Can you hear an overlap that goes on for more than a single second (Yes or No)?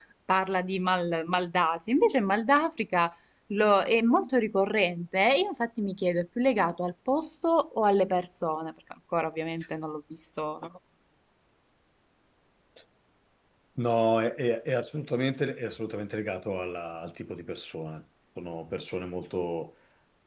No